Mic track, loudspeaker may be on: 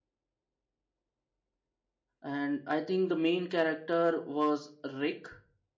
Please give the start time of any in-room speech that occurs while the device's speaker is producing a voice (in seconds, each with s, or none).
2.2 s